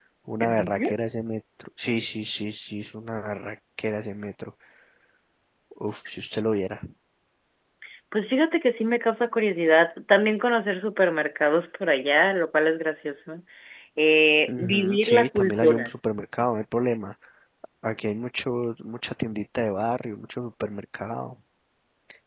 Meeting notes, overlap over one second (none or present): present